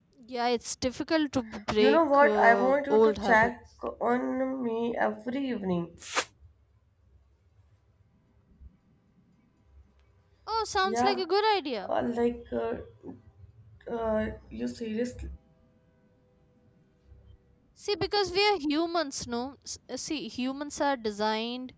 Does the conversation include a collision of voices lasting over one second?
Yes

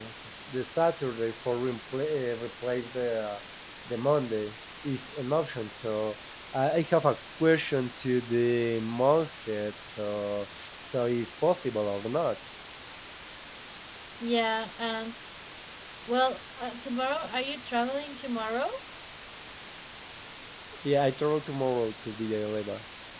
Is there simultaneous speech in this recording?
No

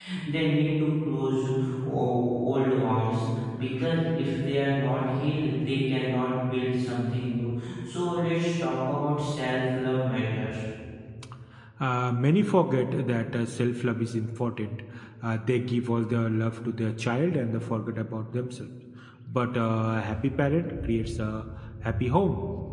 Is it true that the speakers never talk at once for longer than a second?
Yes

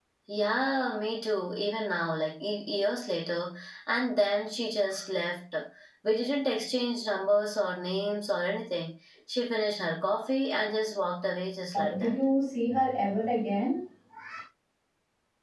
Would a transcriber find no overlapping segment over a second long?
Yes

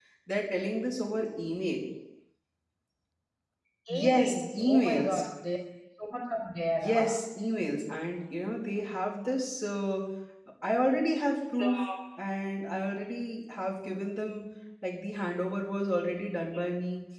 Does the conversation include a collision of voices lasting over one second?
Yes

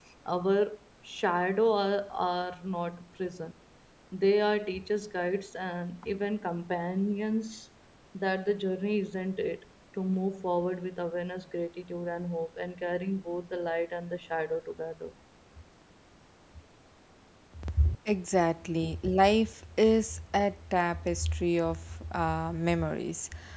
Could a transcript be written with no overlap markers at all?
Yes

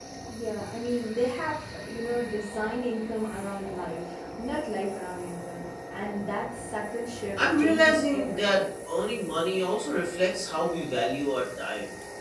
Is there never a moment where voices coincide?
No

